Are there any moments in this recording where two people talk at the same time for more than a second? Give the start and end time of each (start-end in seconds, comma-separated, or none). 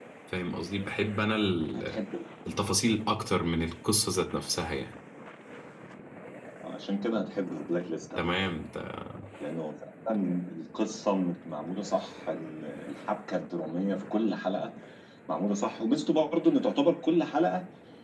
none